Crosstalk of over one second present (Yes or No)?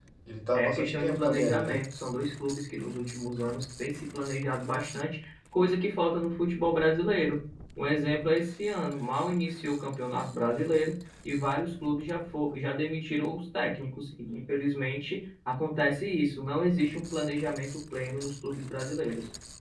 Yes